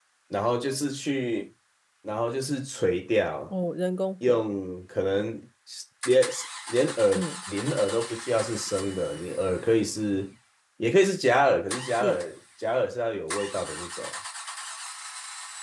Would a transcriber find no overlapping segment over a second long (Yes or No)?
Yes